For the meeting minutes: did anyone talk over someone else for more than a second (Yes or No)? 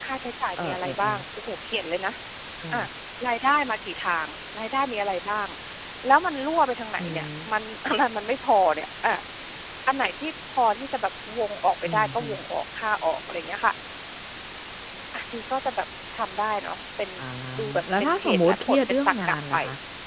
Yes